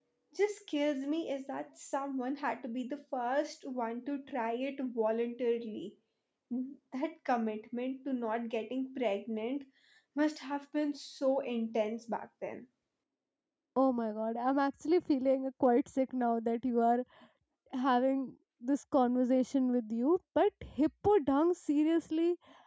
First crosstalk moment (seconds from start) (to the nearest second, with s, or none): none